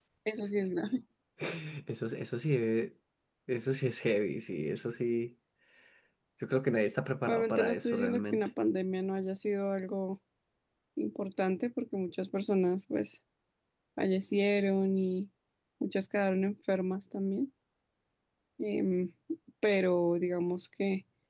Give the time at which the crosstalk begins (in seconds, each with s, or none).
7.3 s